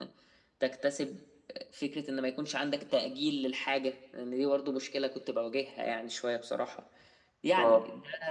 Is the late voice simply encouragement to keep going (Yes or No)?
Yes